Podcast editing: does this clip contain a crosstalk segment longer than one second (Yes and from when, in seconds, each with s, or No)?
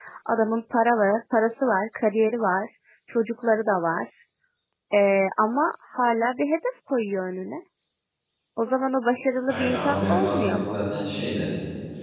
Yes, from 9.5 s